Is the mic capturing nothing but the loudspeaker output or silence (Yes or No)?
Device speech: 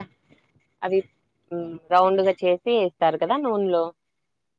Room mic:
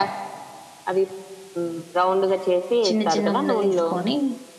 No